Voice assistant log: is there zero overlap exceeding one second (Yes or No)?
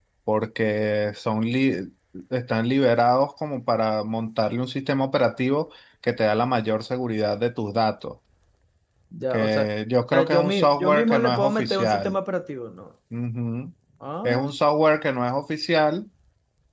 No